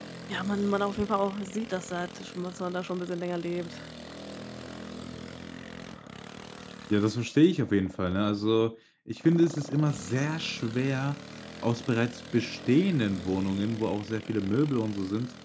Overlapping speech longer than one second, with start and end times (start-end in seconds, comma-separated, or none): none